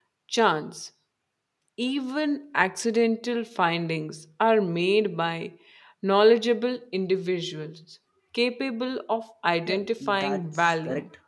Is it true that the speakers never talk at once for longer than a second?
No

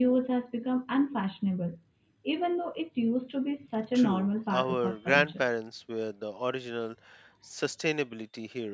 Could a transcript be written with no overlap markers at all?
No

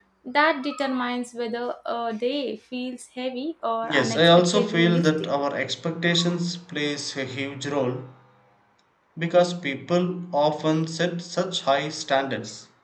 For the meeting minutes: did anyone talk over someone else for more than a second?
Yes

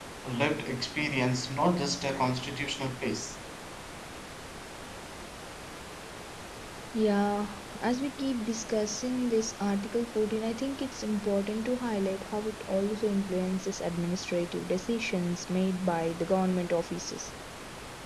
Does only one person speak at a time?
Yes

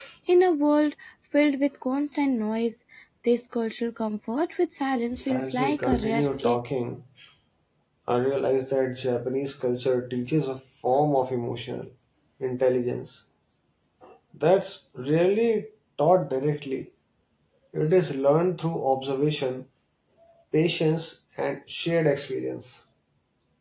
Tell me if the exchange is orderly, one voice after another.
No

